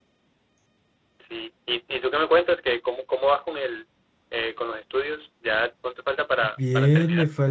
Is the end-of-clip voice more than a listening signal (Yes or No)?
Yes